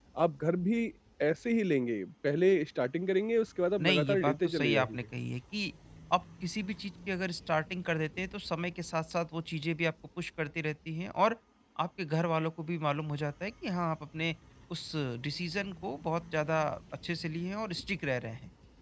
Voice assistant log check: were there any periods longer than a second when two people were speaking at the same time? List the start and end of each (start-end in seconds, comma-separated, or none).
3.8-5.0